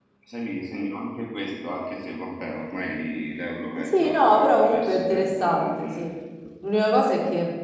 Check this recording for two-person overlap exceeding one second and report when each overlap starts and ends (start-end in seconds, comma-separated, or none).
3.8-6.0